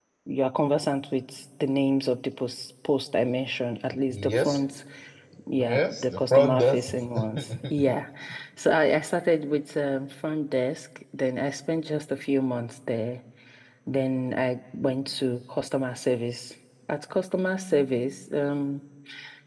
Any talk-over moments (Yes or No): Yes